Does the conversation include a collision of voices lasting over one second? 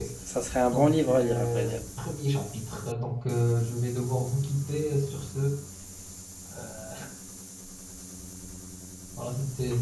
Yes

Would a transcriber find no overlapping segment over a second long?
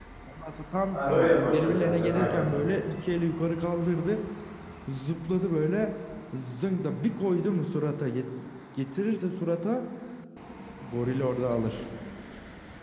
No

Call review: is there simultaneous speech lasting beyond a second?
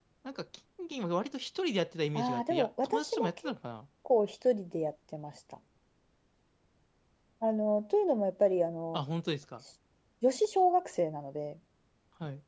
Yes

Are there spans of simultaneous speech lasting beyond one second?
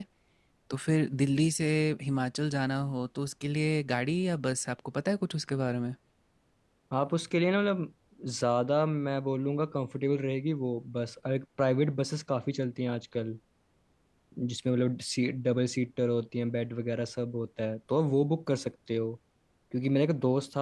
No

